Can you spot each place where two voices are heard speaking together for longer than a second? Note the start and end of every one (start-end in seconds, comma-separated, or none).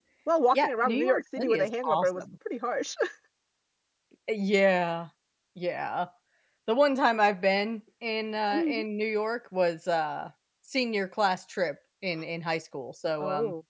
0.5-2.2